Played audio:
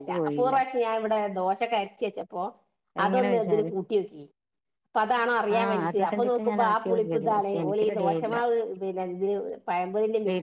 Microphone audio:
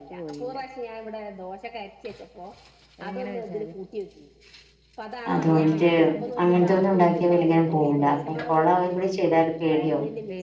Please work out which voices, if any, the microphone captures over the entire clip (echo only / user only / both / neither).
both